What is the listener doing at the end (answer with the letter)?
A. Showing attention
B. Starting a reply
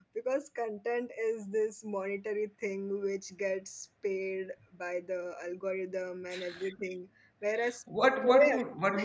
B